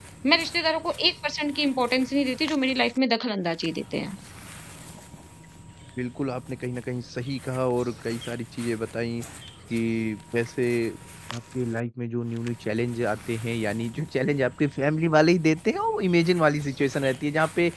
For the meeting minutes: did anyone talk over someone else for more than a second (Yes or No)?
No